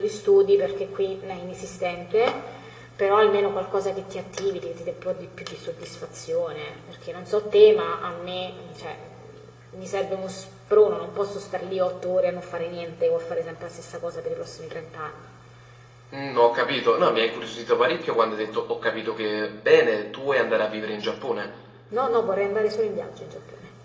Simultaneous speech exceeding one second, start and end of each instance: none

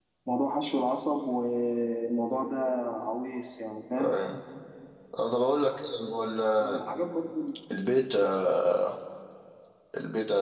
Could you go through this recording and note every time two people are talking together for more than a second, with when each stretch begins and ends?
none

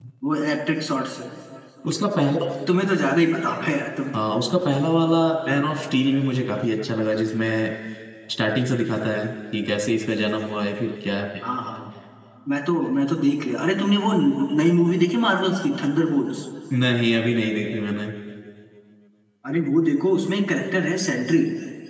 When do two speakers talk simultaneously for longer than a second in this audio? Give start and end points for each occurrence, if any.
none

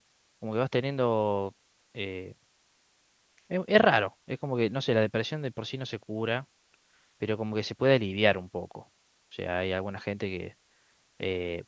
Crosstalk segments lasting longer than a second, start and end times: none

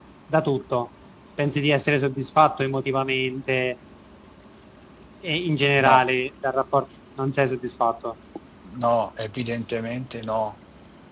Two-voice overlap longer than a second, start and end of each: none

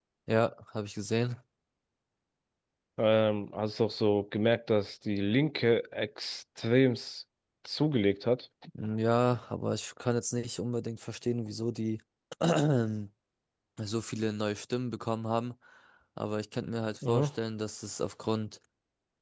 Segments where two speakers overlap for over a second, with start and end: none

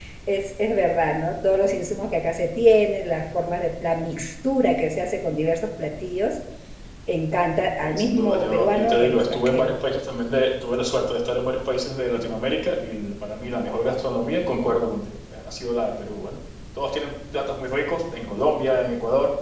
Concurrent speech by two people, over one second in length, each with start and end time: 7.8-9.7

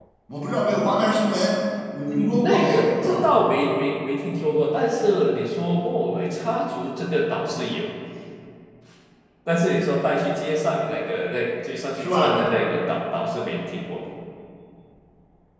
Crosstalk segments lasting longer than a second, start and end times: 2.0-3.3

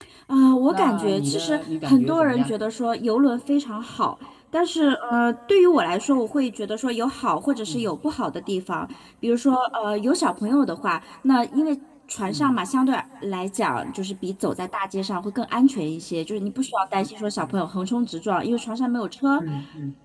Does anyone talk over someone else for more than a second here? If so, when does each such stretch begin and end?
0.7-2.5

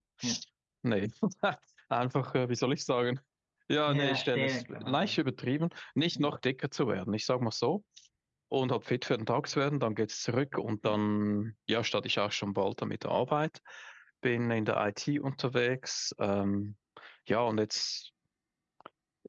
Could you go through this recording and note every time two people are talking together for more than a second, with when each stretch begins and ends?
3.9-5.2

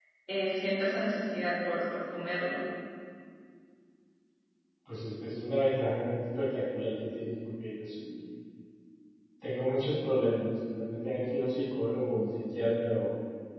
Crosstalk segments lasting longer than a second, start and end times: none

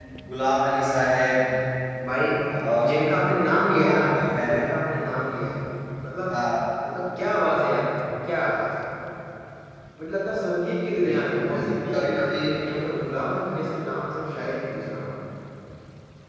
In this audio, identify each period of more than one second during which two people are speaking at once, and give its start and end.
11.1-12.4

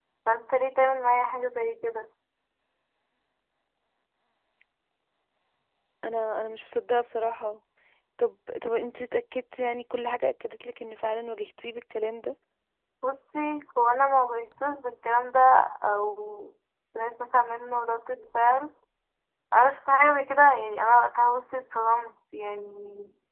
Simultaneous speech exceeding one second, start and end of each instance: none

